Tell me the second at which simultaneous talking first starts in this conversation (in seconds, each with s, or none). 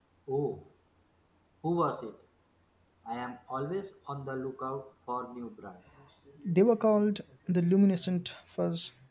none